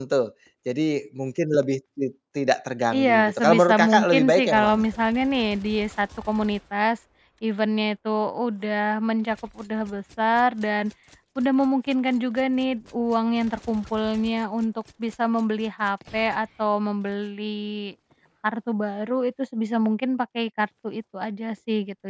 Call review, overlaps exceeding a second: present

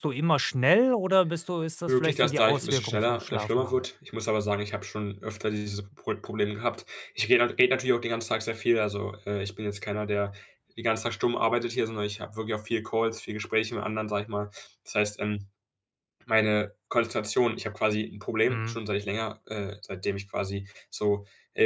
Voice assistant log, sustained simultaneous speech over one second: present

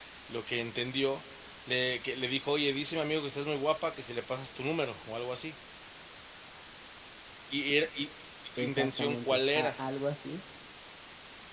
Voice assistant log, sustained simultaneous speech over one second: present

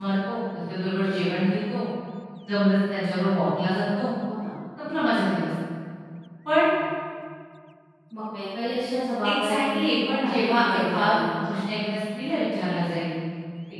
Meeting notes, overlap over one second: present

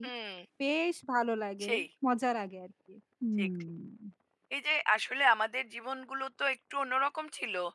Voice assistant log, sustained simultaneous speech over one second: none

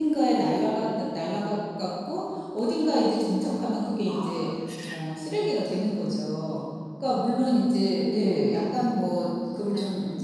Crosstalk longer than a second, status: none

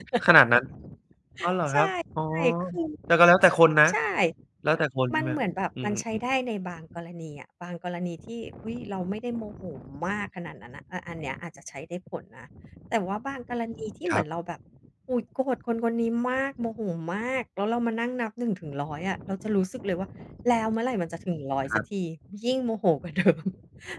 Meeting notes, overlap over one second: none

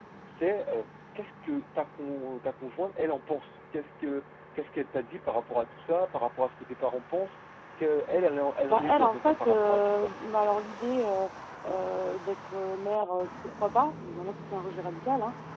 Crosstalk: present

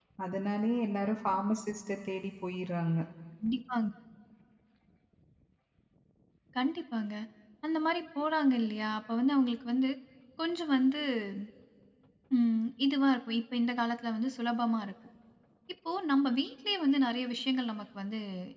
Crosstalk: none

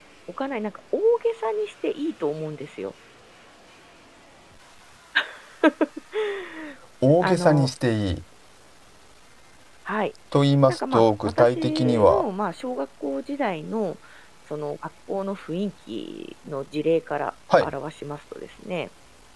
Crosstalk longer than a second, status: present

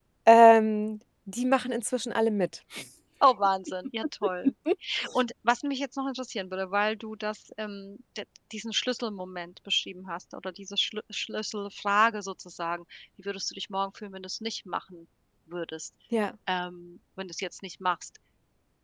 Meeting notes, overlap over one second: none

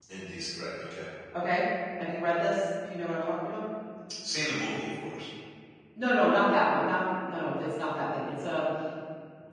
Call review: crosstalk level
none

